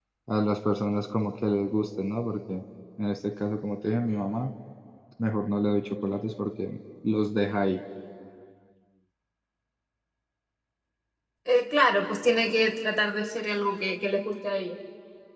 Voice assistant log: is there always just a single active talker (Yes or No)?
Yes